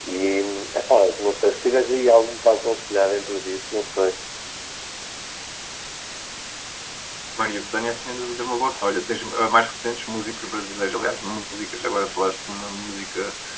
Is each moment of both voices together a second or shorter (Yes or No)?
Yes